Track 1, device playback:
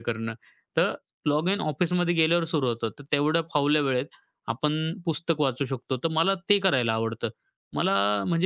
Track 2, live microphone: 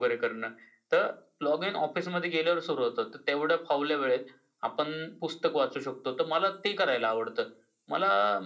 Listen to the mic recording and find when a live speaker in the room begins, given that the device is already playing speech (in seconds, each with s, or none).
none